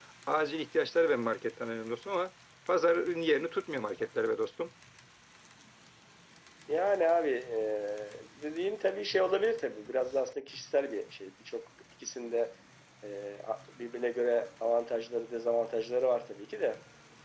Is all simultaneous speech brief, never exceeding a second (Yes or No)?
Yes